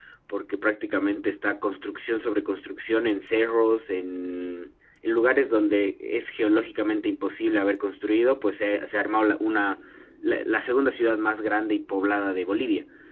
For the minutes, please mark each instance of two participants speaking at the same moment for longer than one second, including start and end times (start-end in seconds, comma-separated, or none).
none